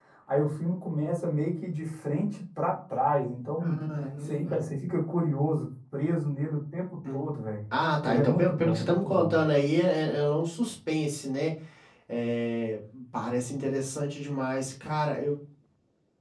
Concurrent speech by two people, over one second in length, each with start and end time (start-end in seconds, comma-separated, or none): 8.1-9.3